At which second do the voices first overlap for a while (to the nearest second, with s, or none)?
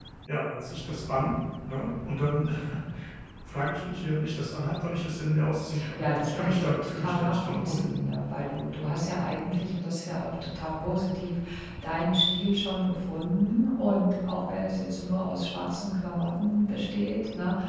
6 s